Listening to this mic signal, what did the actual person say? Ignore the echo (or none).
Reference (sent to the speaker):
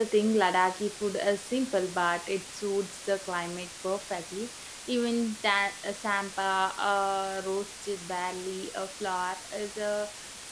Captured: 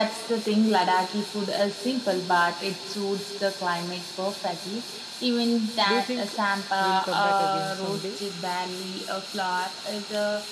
Do you think we'll come back again someday?